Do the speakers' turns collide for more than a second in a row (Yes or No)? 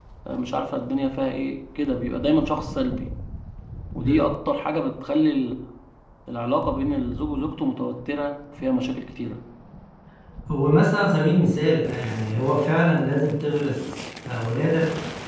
No